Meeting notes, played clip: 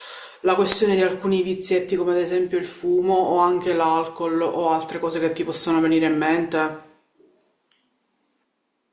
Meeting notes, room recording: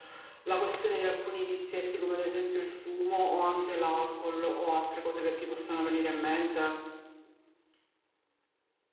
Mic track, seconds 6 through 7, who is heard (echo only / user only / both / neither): echo only